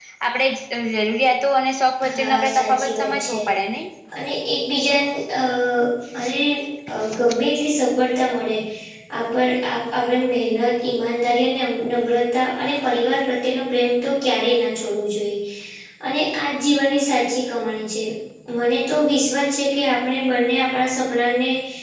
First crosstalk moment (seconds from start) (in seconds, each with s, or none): 2.1 s